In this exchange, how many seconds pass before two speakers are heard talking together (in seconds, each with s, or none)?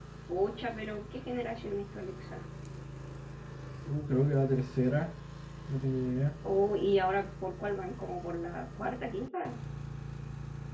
none